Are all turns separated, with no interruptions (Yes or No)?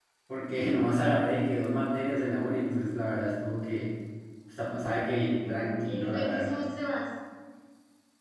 No